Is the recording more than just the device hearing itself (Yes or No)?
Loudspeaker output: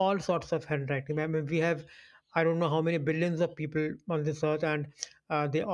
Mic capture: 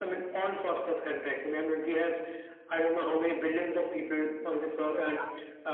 Yes